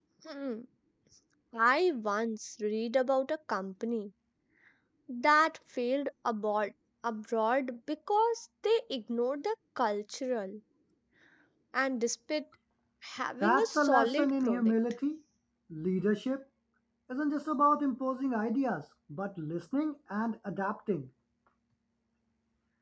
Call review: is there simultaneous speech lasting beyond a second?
Yes, from 13.4 s

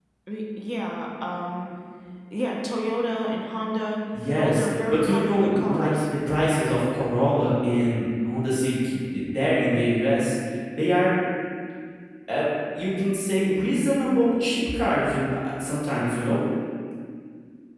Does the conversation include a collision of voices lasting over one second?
Yes, from 4.1 s

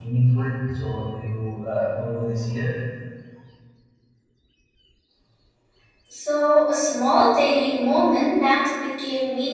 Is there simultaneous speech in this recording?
No

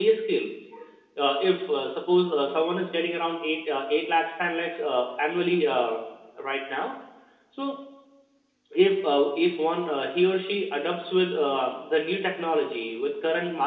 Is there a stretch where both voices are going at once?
No

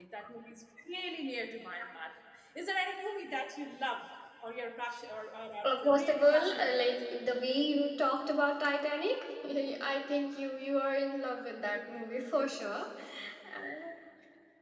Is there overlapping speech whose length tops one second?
Yes, from 5.6 s

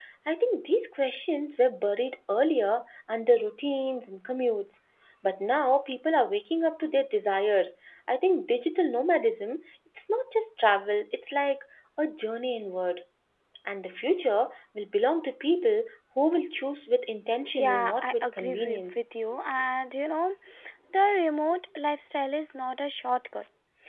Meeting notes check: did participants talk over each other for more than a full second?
Yes, from 17.4 s

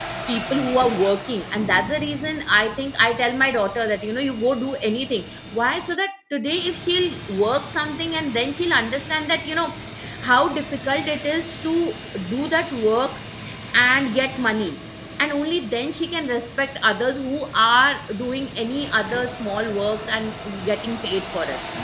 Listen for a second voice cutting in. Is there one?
No

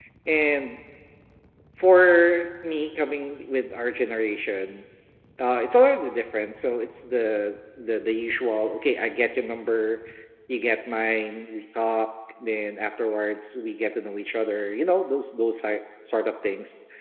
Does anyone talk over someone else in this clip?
No

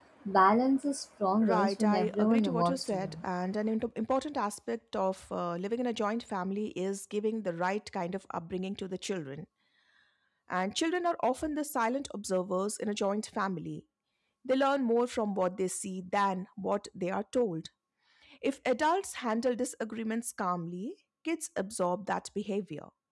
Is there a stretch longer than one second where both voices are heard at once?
Yes, from 1.4 s

